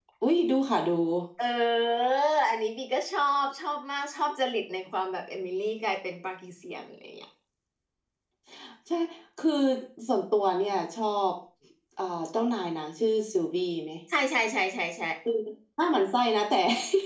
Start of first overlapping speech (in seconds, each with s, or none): none